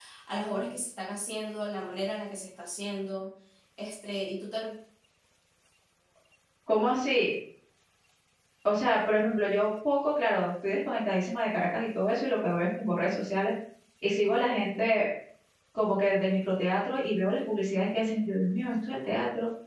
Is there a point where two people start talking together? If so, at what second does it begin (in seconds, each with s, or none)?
none